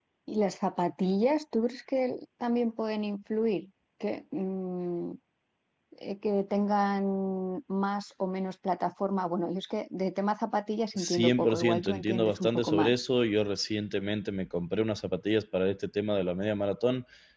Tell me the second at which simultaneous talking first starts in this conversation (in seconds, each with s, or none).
10.9 s